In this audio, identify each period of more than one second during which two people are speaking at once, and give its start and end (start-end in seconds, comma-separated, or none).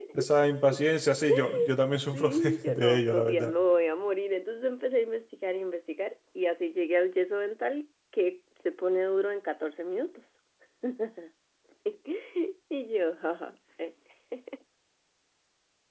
2.1-3.5